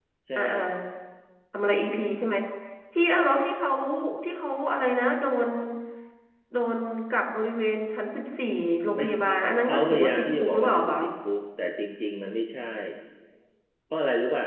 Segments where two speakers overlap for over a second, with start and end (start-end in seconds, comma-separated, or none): 9.7-11.0